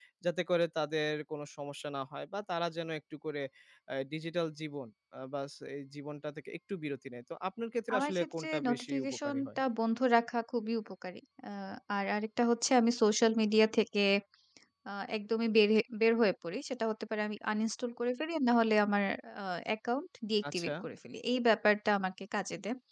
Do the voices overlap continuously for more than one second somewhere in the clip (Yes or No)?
Yes